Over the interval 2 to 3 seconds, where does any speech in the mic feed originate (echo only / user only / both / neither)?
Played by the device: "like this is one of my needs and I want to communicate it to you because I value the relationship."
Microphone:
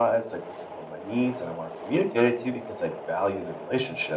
echo only